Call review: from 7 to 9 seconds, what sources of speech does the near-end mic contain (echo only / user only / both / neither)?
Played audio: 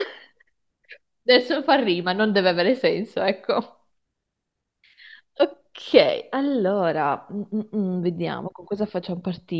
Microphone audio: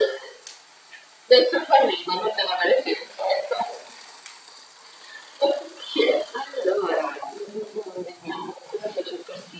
echo only